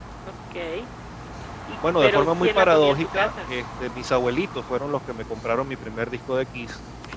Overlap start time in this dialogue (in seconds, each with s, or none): 2.0 s